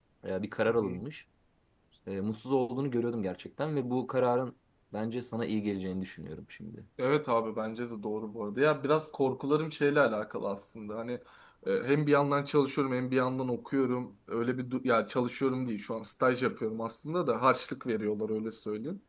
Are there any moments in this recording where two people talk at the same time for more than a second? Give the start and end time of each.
none

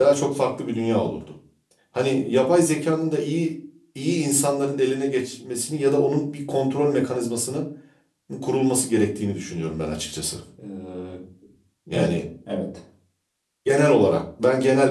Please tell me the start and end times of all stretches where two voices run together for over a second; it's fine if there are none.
none

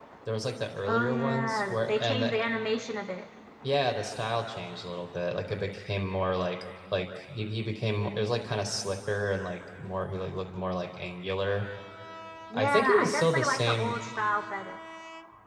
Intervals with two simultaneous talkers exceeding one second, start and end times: 0.9-2.4, 12.5-13.9

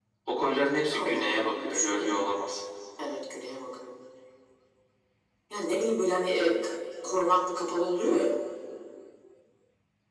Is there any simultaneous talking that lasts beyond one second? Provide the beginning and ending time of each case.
0.9-2.2

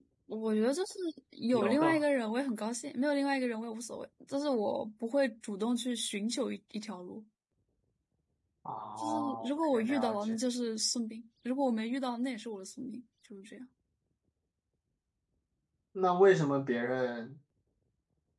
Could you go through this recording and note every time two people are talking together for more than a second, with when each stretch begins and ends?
9.0-10.3

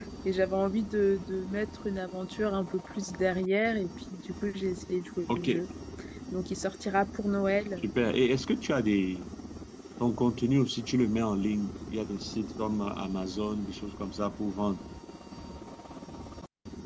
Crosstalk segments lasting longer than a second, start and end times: none

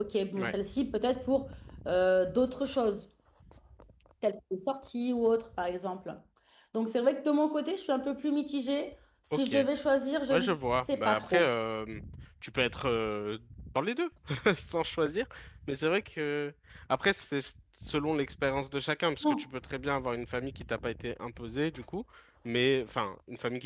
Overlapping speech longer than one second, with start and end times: 10.3-11.5

